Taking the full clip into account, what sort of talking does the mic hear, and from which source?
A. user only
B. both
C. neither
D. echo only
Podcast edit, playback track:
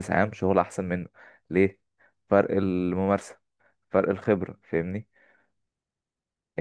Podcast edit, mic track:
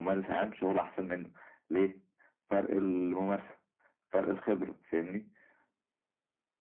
D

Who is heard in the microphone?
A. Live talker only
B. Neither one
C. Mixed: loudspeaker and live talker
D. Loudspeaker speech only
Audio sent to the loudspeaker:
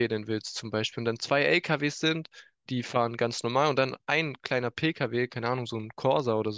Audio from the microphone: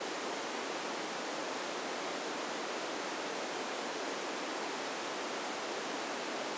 B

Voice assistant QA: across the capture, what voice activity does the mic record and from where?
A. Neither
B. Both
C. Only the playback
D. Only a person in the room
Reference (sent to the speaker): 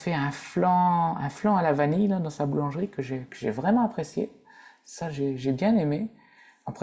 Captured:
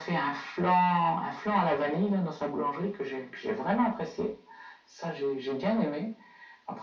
C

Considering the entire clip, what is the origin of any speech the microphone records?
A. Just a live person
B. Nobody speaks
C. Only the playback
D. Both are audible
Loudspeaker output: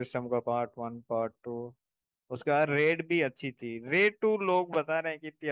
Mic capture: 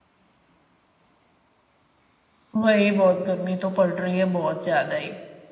A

